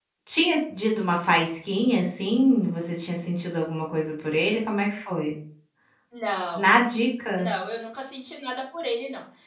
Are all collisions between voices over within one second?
Yes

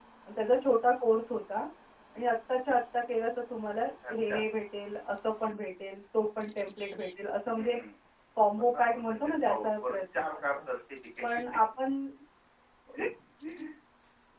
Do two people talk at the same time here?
Yes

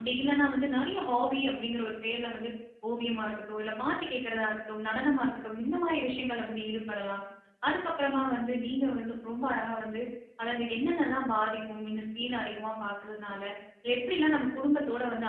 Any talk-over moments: No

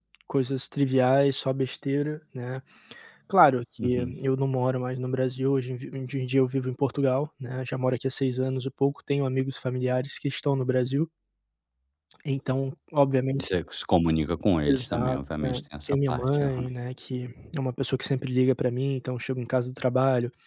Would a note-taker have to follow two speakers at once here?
Yes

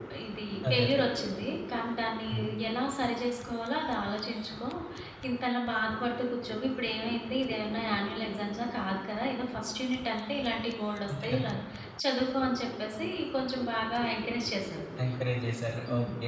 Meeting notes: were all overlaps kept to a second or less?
Yes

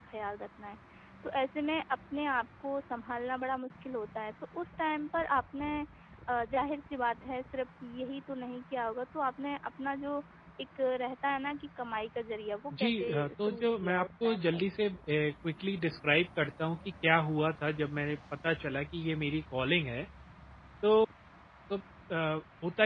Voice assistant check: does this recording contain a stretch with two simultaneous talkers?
Yes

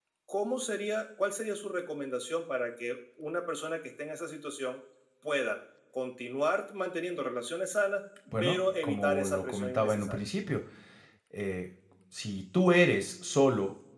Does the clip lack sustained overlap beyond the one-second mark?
No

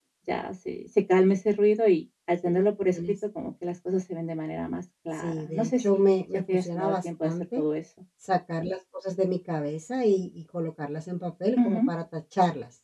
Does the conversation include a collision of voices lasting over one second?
Yes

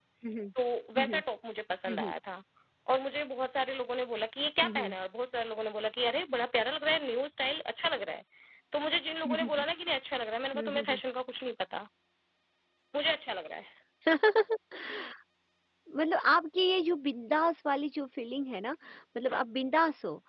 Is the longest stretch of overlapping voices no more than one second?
Yes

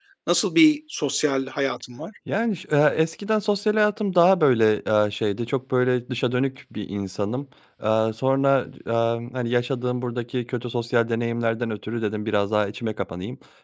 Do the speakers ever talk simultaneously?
No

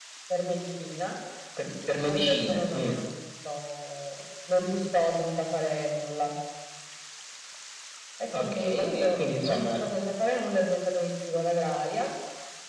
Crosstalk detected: Yes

